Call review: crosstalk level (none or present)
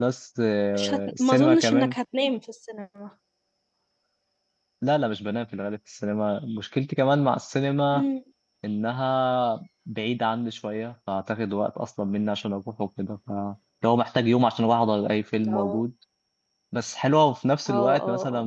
present